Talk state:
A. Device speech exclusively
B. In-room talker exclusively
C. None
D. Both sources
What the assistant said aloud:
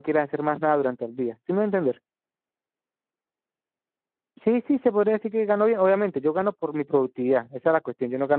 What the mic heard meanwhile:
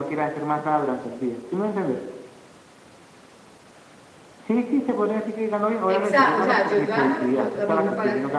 D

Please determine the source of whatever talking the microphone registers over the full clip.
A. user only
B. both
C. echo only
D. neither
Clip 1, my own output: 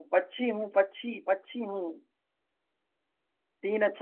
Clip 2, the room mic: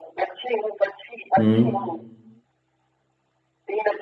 B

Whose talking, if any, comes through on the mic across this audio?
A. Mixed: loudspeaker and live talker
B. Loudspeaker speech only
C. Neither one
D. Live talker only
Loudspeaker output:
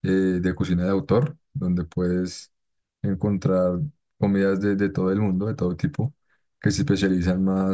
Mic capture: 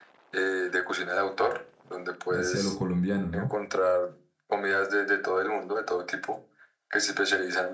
A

